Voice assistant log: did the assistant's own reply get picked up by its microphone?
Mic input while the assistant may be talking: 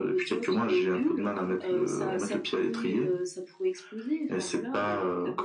Yes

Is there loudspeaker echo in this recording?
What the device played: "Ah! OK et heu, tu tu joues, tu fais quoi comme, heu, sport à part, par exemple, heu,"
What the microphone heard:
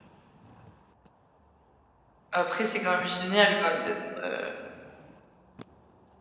No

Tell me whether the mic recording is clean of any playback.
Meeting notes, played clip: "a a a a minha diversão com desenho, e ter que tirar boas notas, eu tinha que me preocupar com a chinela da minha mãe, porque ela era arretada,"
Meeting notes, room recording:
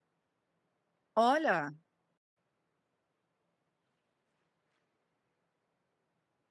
Yes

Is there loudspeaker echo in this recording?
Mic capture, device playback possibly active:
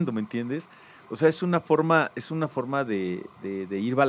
No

